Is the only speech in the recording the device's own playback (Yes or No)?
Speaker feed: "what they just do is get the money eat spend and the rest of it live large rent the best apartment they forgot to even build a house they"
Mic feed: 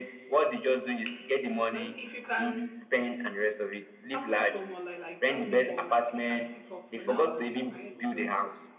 No